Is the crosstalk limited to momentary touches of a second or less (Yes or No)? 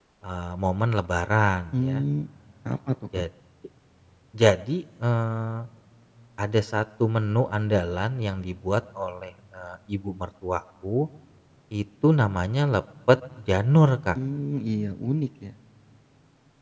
Yes